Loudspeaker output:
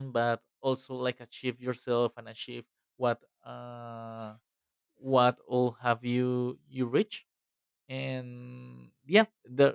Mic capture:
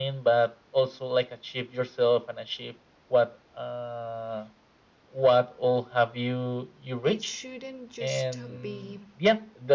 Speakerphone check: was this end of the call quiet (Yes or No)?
No